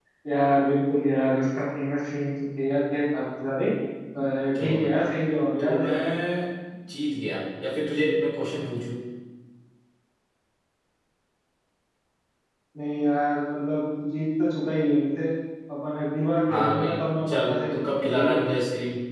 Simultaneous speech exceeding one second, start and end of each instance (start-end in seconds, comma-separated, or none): 16.5-18.4